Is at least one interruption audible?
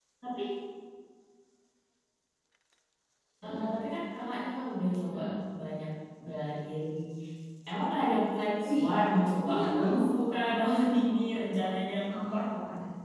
Yes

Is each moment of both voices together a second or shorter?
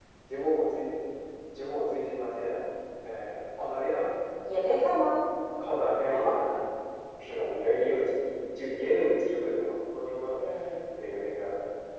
Yes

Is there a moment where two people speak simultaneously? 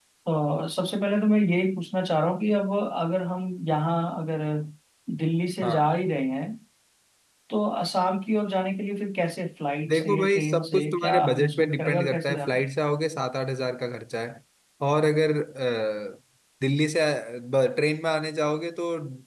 Yes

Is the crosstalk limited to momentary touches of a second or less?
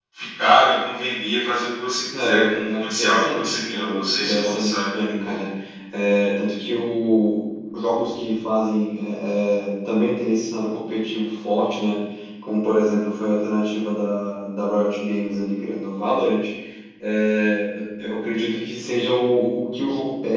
No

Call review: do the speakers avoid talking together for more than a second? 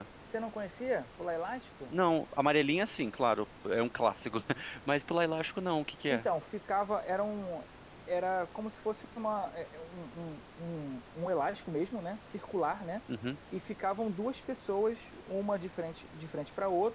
Yes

